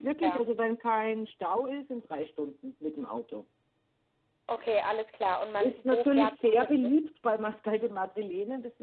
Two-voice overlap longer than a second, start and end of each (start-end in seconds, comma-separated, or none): 5.6-6.9